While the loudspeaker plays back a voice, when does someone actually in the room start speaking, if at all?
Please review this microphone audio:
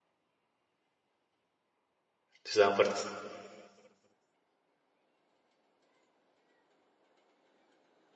2 s

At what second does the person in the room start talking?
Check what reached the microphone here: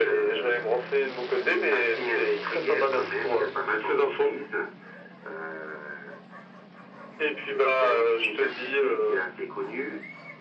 none

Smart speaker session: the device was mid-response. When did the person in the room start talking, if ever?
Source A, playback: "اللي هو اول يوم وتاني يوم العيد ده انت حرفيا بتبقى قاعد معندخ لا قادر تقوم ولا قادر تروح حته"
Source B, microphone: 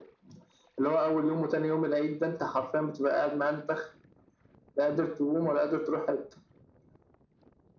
none

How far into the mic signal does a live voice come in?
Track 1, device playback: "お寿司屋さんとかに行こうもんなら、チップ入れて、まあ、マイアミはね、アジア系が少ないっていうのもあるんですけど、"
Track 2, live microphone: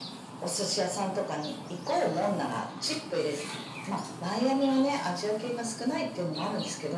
none

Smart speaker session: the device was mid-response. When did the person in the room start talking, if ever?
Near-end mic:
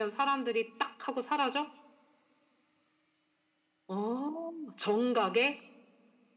none

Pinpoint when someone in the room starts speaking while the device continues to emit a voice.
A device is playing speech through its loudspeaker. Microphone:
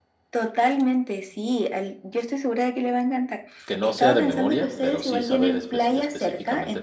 4 s

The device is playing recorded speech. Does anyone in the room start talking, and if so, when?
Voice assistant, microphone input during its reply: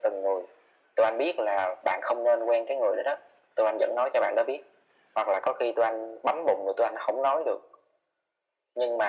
none

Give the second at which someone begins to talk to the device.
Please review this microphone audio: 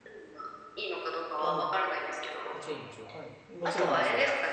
1 s

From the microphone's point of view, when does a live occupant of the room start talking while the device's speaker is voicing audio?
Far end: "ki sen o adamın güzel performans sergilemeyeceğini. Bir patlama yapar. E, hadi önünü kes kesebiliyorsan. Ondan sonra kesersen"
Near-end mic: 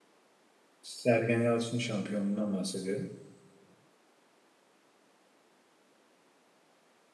1 s

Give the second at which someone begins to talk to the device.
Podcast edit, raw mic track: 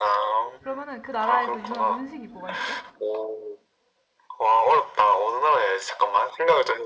1 s

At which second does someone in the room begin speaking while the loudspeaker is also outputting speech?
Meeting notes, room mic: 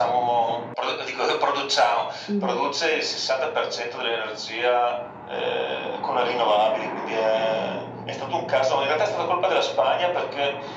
2 s

